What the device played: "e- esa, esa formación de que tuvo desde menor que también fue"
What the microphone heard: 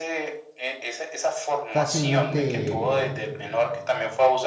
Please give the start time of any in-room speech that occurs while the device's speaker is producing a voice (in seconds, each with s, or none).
1.7 s